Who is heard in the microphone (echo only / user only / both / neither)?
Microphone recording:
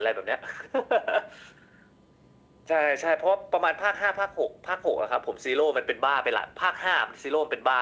echo only